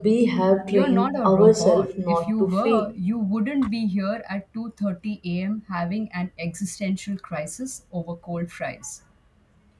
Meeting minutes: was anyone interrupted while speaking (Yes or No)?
Yes